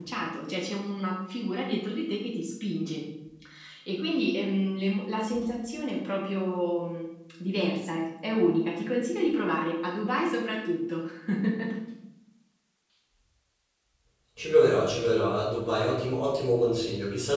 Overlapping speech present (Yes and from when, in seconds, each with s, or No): No